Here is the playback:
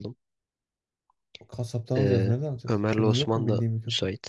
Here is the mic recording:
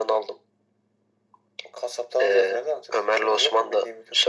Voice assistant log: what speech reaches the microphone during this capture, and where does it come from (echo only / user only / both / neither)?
echo only